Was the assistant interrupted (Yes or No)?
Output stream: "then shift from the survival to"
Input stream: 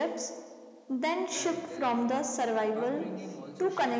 Yes